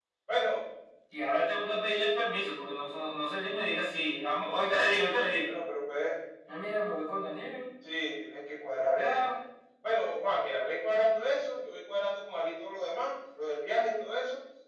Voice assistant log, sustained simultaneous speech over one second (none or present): none